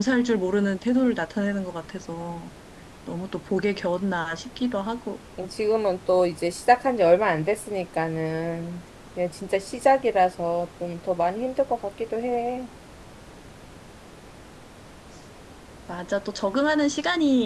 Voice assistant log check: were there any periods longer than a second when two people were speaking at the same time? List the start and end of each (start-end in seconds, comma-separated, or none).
none